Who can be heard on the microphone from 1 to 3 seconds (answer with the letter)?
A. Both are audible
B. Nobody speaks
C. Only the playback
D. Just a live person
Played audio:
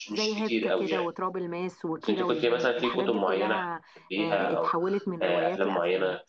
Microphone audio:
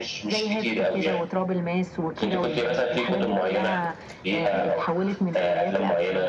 C